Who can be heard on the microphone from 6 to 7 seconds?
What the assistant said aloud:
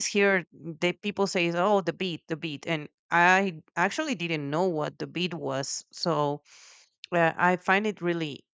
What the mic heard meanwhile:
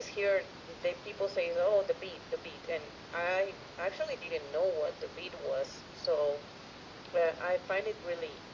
echo only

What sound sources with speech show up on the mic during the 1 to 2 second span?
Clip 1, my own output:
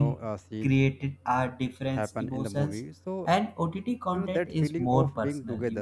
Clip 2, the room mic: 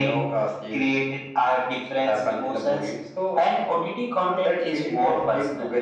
echo only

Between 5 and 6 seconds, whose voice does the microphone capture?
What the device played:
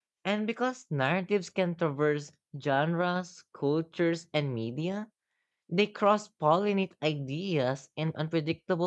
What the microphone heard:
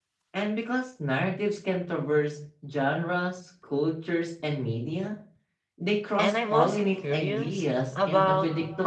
echo only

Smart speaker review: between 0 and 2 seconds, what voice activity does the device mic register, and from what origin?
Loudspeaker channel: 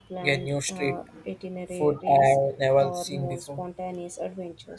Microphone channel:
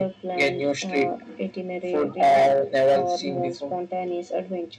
echo only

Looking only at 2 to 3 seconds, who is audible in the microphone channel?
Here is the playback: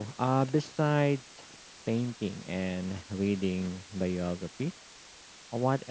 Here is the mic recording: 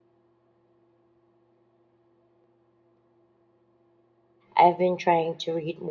neither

